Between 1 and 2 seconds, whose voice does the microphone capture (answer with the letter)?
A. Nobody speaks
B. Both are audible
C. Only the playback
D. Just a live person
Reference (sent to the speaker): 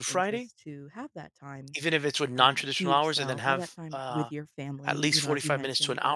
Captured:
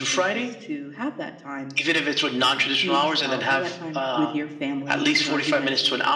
C